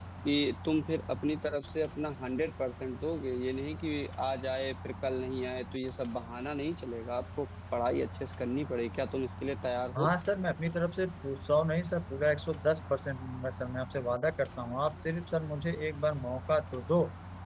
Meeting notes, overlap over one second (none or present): none